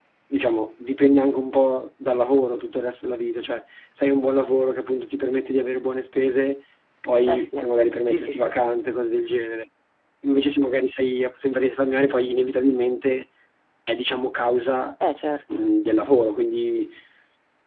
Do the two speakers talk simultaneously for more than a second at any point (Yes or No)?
No